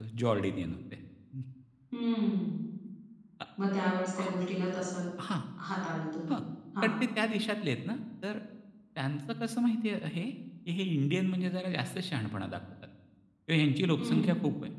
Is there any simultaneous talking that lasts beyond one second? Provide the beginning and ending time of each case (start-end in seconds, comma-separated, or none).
none